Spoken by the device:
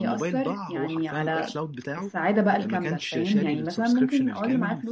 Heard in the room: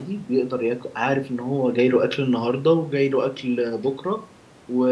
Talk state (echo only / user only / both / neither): user only